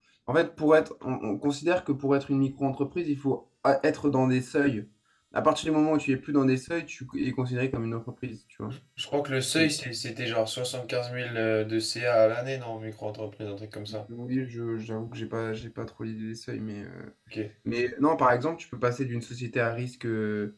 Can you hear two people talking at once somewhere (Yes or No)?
No